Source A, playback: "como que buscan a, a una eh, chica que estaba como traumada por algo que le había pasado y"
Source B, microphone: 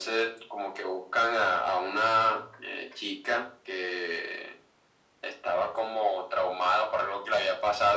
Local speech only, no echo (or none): none